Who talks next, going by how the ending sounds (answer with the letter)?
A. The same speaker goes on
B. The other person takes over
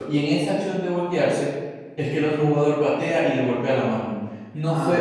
B